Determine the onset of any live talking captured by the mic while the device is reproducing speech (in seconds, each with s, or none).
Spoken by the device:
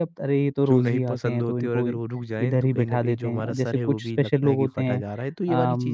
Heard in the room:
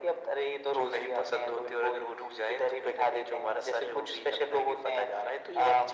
none